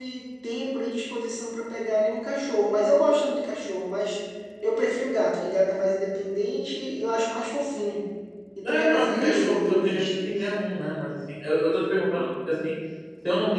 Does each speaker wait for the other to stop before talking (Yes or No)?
No